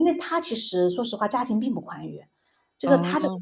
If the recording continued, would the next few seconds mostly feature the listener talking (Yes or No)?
No